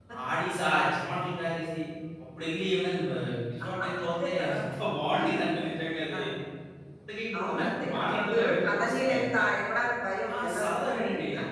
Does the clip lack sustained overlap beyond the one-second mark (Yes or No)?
No